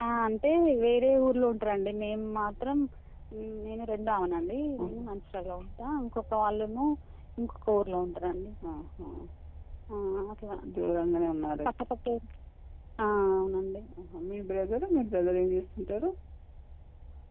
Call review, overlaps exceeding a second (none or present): none